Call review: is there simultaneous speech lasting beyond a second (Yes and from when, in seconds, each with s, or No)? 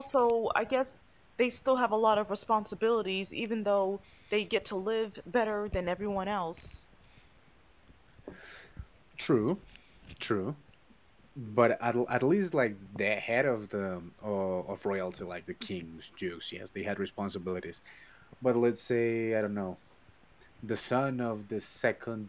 No